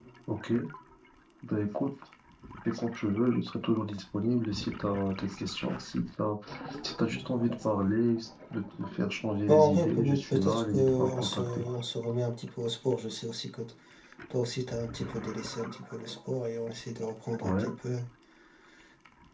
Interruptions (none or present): present